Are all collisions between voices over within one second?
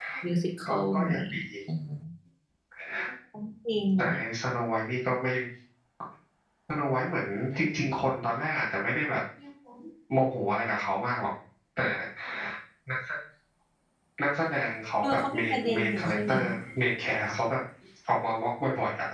No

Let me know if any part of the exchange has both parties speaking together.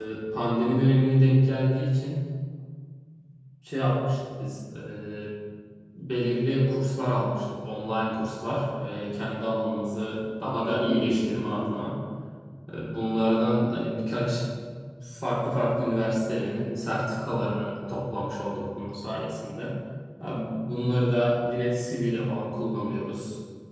Yes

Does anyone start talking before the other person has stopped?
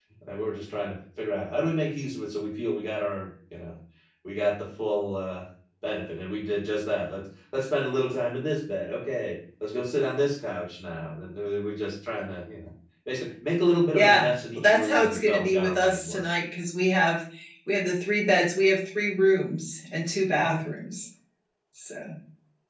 Yes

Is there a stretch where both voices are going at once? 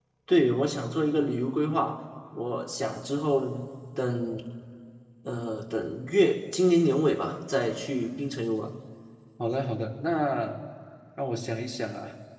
No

